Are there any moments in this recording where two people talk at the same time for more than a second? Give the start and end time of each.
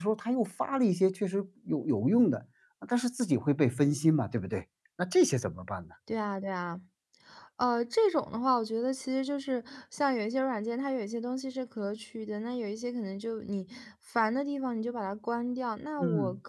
none

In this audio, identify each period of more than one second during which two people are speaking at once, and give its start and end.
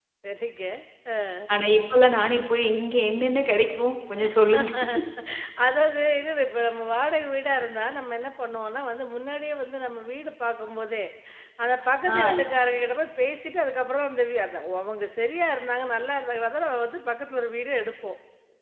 none

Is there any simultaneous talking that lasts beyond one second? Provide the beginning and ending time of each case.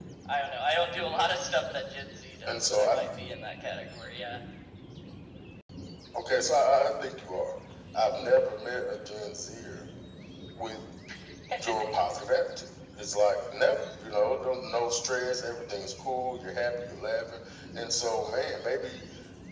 none

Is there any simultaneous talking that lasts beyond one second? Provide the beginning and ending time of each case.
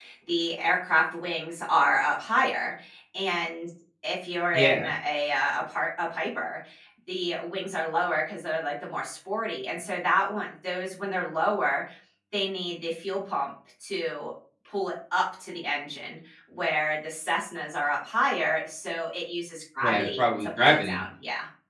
19.8-21.0

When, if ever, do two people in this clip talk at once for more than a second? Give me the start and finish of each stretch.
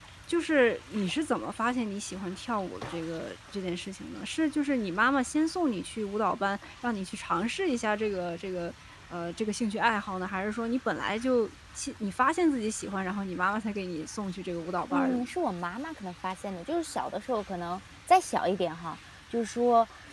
none

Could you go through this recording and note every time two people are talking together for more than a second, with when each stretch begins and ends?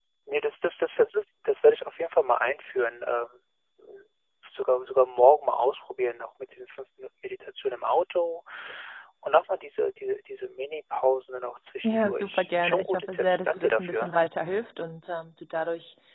11.8-14.1

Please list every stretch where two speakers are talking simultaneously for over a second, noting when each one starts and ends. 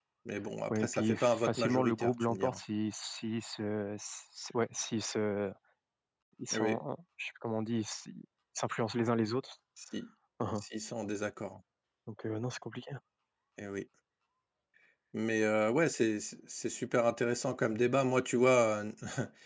0.7-2.6

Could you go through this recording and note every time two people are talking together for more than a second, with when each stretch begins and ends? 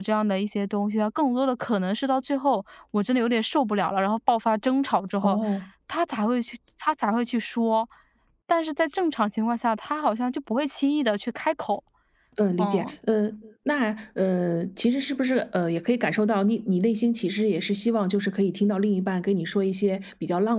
none

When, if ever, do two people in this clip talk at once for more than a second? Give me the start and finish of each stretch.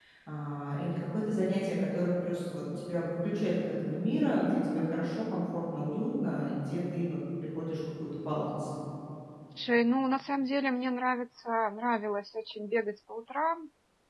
none

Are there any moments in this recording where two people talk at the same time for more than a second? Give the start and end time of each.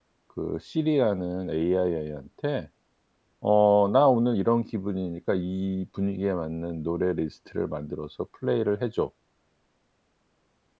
none

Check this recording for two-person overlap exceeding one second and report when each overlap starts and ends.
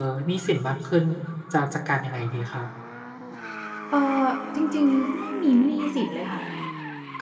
none

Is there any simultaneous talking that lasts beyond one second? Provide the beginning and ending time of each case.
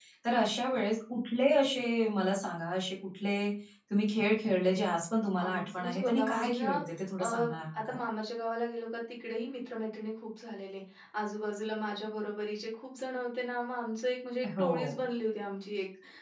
5.4-6.7

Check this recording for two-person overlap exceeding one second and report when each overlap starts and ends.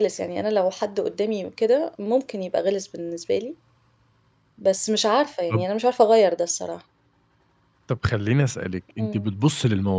none

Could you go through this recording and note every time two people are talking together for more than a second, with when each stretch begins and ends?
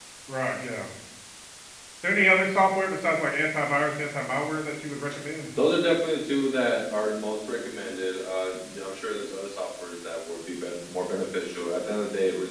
none

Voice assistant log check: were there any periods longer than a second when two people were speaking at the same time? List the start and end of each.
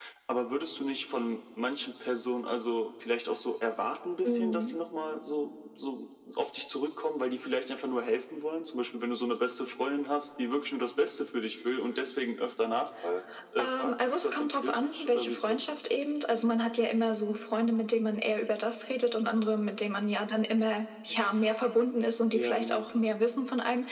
13.6-15.7

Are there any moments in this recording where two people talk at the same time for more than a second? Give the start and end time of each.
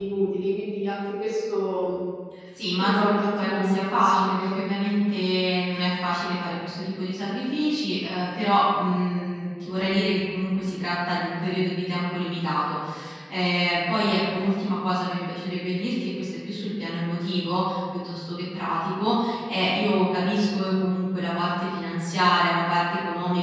2.8-4.6

